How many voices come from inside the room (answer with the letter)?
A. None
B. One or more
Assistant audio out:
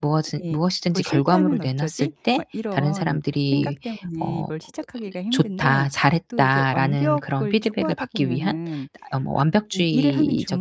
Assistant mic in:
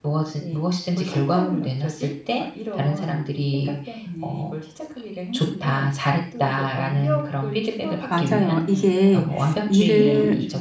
B